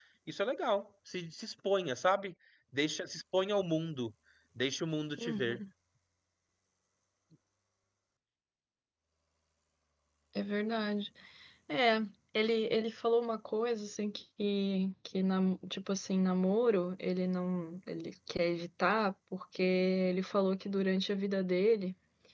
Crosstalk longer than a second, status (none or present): none